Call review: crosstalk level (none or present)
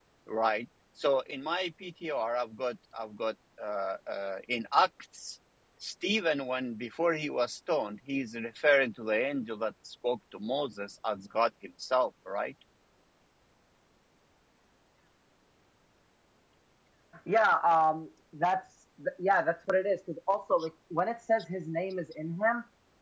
none